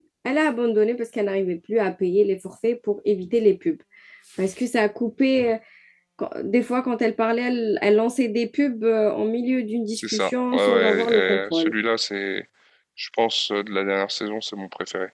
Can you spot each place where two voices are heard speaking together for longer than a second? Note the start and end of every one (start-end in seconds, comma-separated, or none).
10.0-11.7